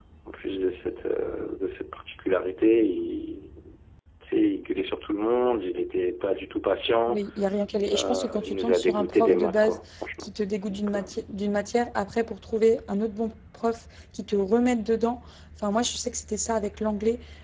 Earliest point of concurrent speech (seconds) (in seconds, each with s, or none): 7.9 s